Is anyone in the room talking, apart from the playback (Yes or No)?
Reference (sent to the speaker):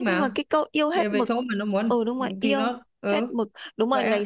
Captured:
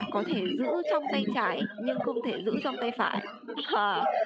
Yes